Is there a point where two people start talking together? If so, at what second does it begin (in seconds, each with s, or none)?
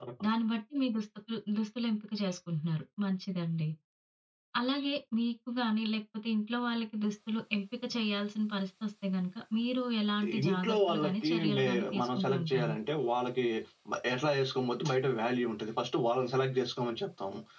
10.2 s